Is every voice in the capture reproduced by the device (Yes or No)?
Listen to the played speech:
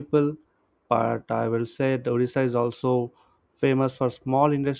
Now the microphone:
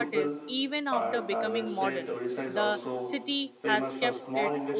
No